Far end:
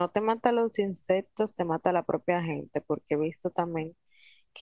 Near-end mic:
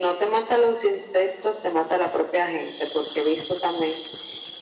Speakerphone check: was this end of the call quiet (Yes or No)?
Yes